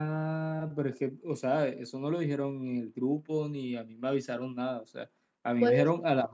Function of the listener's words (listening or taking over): listening